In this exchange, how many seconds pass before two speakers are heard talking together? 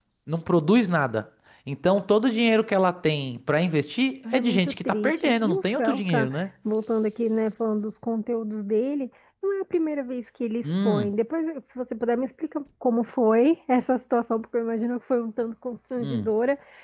4.3 s

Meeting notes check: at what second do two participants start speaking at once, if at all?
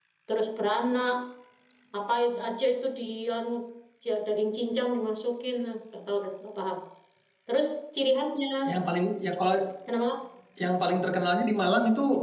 none

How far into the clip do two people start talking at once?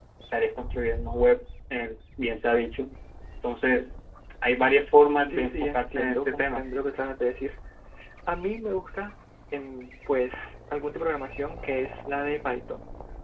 5.3 s

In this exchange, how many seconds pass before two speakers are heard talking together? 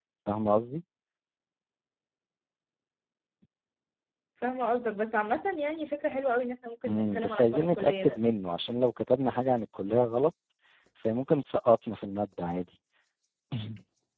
6.9 s

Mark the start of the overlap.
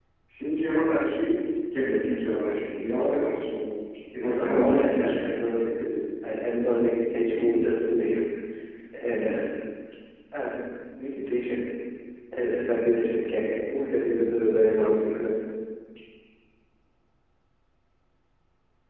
4.2 s

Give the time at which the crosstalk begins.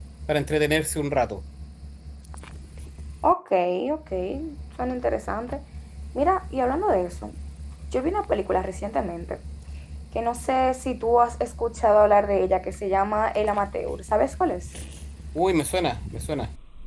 none

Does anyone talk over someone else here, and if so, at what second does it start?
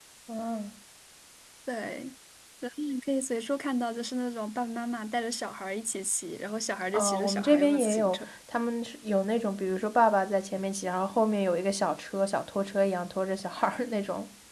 6.9 s

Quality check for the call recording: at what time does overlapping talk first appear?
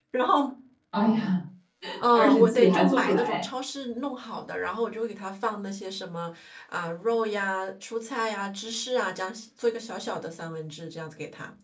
2.1 s

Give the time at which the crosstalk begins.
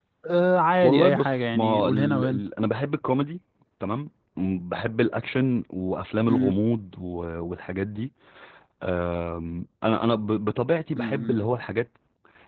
0.8 s

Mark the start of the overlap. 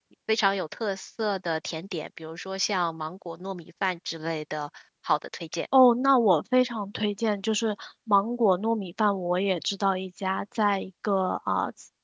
none

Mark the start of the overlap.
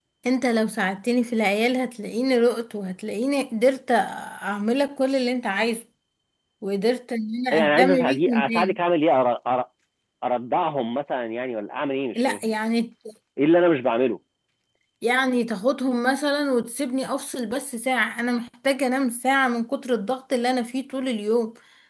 7.5 s

